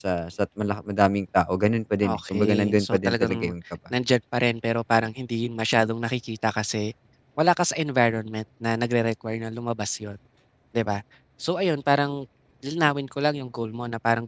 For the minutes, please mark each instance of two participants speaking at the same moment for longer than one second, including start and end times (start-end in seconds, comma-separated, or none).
2.0-3.5